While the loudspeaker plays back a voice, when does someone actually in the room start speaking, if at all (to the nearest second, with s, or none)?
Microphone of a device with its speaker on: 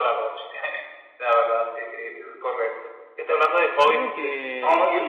4 s